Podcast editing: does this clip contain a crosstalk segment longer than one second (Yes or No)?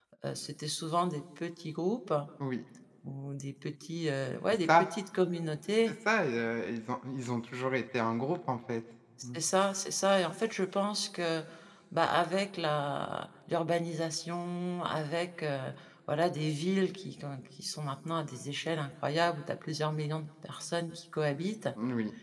No